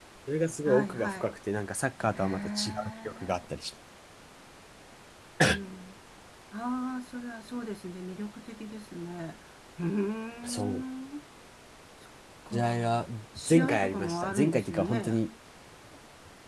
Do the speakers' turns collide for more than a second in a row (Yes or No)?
Yes